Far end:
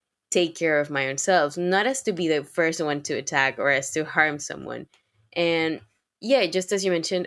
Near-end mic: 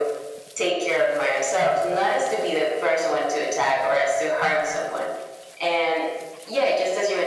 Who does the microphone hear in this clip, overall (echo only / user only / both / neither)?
echo only